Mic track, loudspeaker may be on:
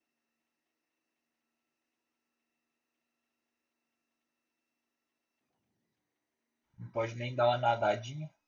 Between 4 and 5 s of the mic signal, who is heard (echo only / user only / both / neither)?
neither